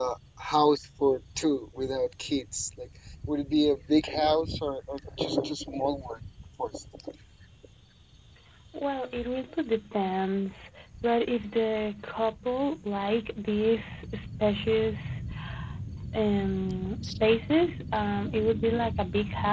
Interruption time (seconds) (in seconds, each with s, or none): none